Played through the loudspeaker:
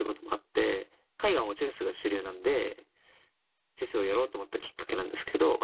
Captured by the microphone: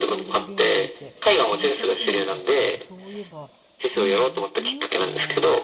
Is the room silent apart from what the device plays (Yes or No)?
No